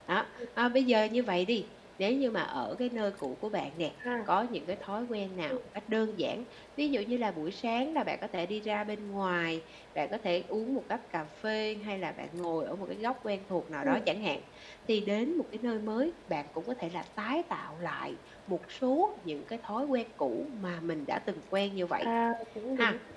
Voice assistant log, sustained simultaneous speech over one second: none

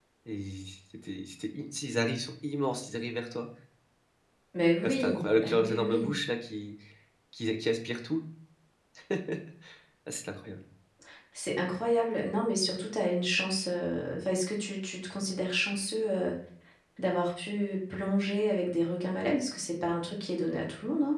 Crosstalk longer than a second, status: present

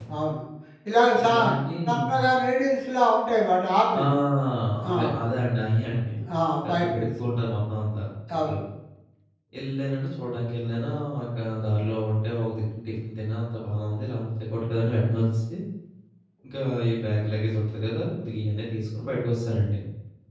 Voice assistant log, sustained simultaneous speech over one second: none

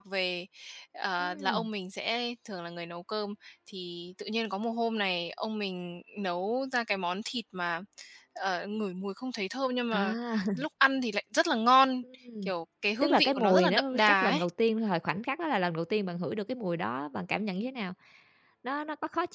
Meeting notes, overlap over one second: present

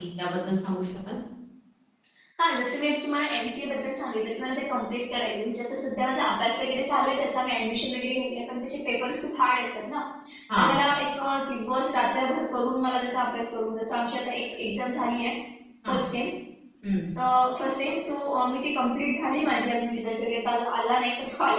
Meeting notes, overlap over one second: none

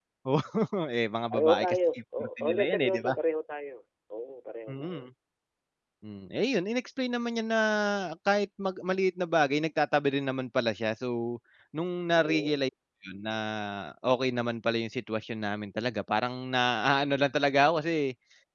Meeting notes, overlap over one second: present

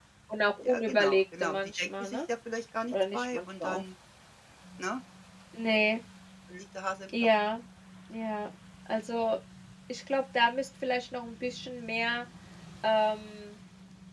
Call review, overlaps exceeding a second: present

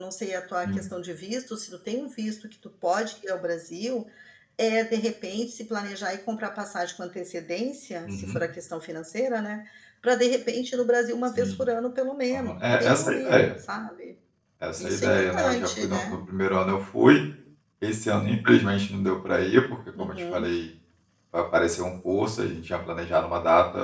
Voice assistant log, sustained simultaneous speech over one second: present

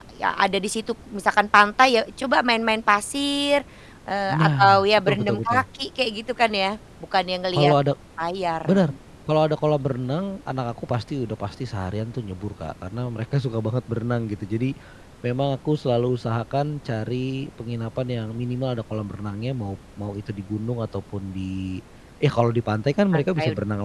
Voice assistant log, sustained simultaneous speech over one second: present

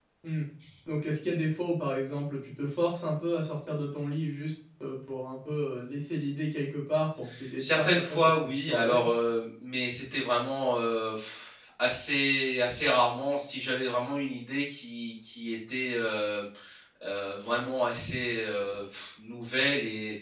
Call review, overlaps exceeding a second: present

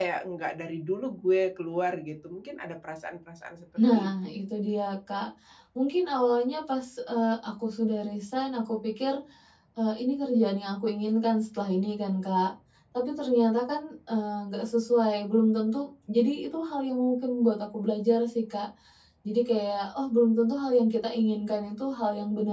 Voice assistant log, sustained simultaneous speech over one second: none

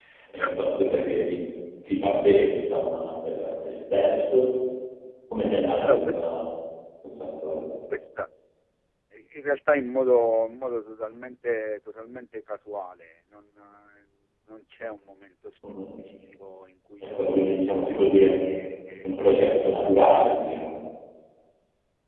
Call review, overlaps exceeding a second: present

